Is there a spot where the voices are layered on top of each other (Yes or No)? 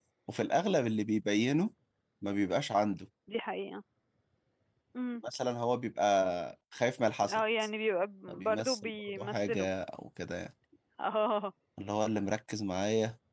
Yes